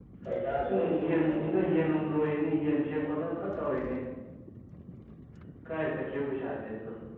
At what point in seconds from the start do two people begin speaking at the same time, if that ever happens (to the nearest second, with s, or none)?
1 s